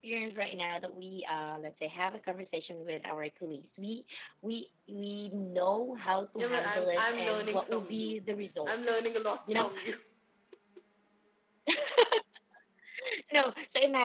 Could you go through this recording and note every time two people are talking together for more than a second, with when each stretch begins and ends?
6.4-8.2

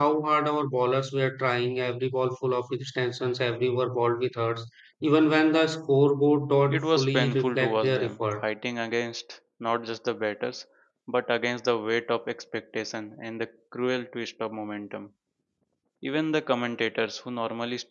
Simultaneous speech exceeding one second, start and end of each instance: 6.7-8.4

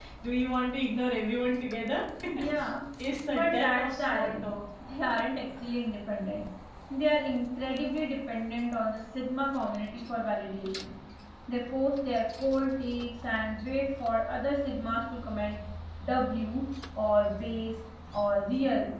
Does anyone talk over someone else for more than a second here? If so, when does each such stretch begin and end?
3.3-4.5

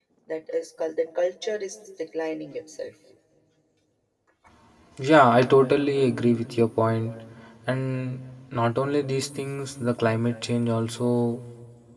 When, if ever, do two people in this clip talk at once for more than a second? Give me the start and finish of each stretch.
none

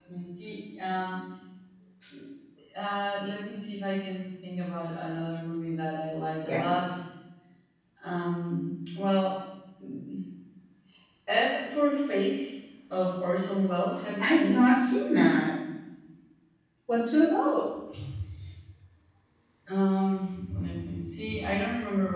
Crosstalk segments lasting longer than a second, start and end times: none

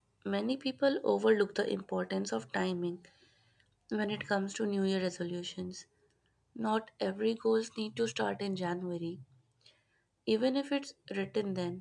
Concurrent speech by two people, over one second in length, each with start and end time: none

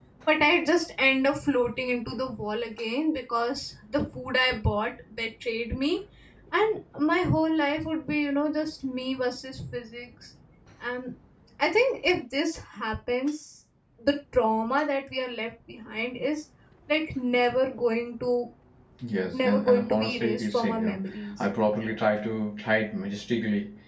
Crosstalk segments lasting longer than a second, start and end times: 19.3-21.0

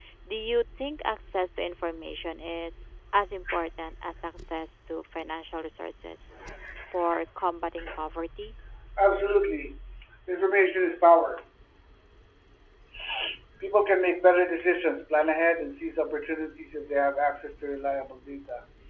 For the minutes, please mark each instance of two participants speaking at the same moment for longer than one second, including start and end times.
none

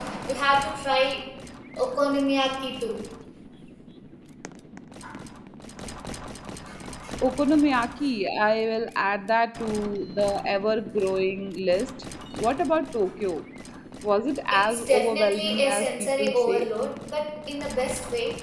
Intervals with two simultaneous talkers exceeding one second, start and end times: 14.5-16.7

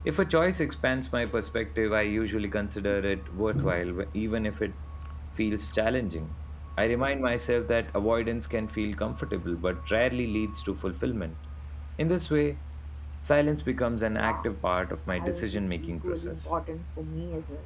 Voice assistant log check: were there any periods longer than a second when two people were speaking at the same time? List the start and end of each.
15.1-16.4

